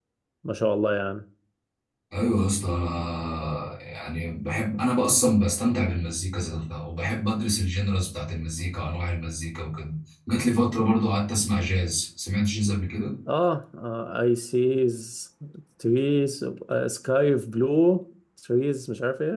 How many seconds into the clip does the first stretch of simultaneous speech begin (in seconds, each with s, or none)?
none